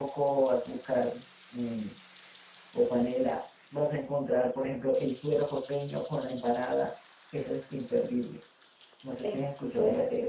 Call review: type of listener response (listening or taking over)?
taking over